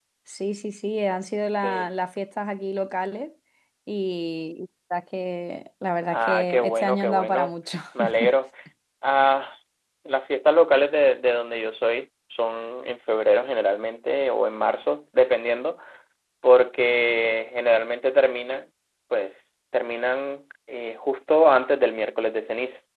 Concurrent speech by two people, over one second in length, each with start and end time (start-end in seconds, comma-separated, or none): 6.1-7.5